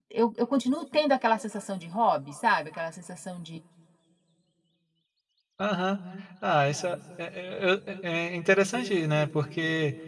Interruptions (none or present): none